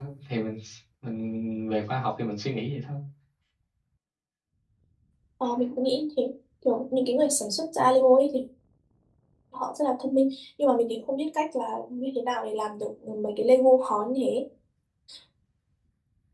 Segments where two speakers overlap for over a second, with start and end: none

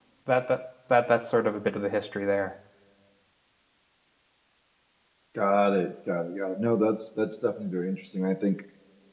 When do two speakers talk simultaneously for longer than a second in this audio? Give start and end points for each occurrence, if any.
none

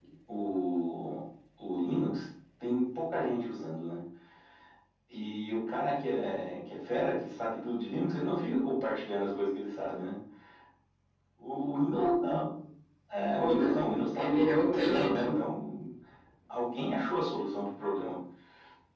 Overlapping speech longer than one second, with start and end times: 13.4-15.4

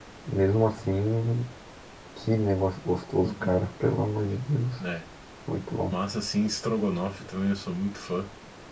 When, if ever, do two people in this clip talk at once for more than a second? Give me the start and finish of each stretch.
none

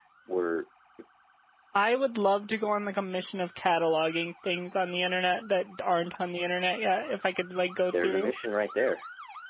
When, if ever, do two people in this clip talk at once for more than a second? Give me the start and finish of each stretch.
none

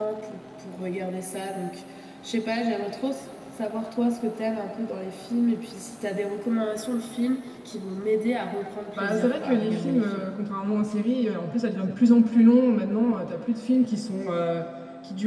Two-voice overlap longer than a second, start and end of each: 9.0-10.3

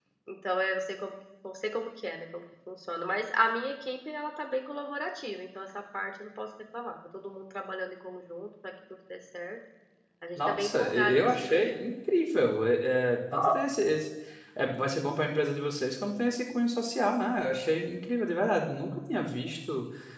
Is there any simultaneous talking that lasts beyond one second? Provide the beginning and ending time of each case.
10.4-11.8

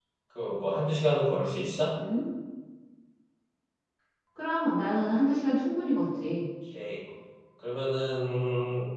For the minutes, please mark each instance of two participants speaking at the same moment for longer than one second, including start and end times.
none

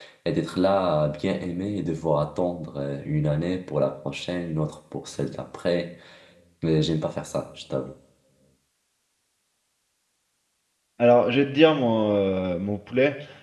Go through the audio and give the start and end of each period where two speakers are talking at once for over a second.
none

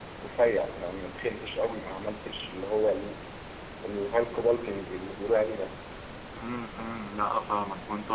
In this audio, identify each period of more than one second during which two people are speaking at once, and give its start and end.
none

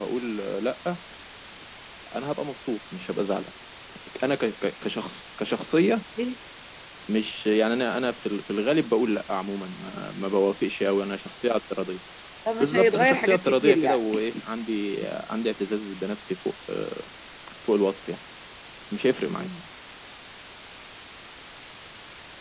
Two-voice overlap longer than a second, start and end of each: 12.6-14.0

